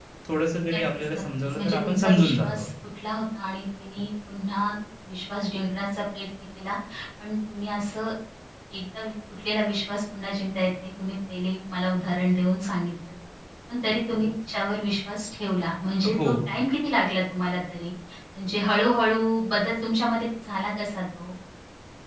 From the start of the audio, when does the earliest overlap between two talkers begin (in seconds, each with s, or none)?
0.7 s